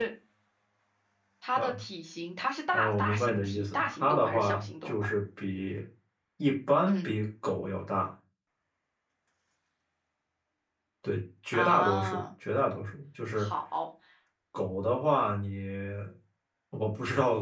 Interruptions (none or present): present